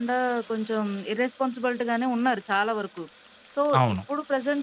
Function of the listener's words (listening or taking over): listening